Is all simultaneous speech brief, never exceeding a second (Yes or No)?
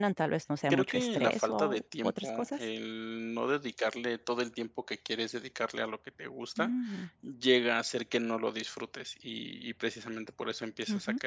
No